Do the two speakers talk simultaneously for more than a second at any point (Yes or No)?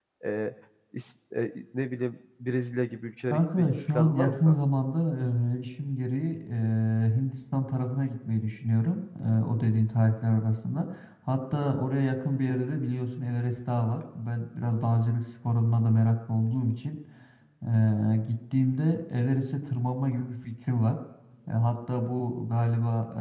Yes